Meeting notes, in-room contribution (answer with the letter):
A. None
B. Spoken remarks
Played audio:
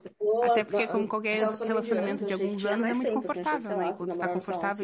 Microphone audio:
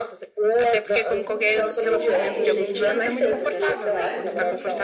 B